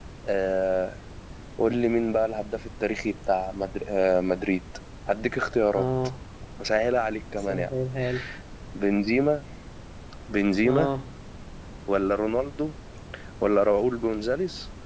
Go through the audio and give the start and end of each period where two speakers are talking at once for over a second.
none

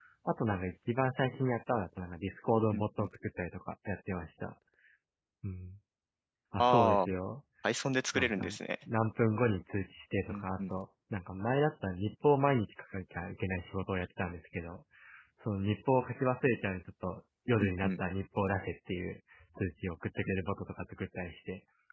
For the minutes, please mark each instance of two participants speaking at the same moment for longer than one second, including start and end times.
none

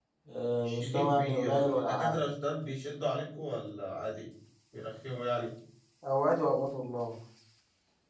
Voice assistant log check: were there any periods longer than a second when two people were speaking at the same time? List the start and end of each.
0.6-2.2

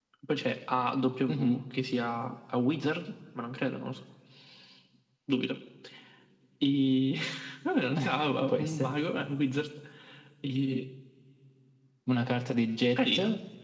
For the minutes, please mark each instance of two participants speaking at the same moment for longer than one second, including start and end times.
none

